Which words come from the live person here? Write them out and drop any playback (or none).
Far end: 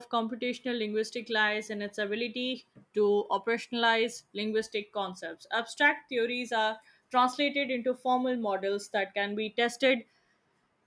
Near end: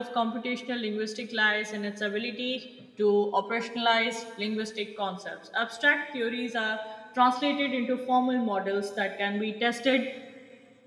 none